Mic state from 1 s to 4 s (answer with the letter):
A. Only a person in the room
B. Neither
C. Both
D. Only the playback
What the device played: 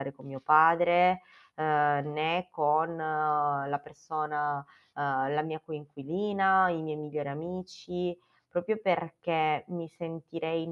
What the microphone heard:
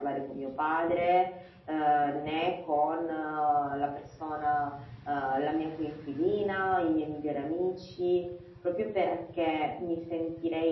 D